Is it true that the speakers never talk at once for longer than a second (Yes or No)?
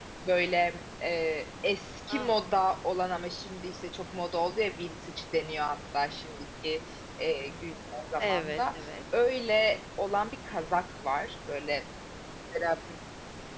Yes